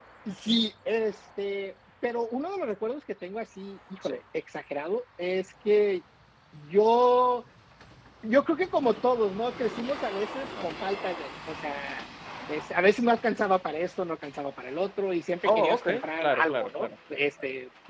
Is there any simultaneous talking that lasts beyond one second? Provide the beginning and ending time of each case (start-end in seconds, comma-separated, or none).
15.4-17.2